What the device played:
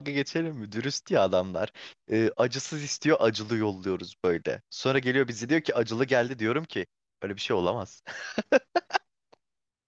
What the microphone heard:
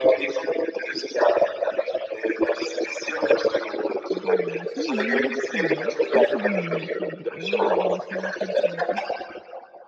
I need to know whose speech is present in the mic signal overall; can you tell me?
both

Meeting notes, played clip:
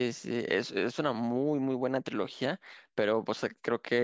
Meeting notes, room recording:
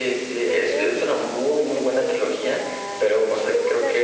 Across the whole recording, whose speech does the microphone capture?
both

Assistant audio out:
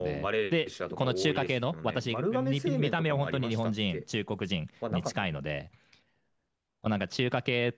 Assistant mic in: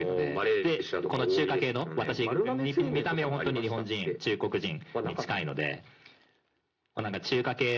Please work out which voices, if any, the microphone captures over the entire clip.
echo only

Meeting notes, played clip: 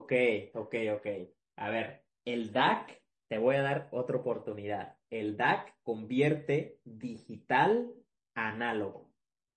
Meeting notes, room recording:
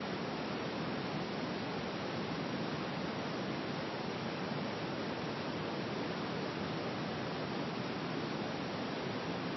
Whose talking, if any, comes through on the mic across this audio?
neither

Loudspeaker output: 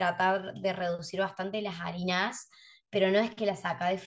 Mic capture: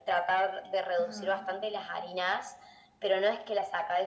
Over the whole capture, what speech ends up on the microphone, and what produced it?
both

